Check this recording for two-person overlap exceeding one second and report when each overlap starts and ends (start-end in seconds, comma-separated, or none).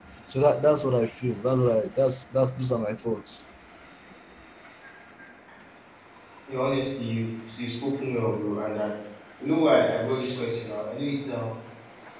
none